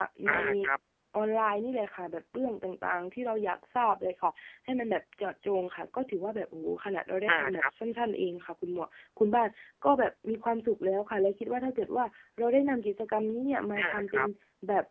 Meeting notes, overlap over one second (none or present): none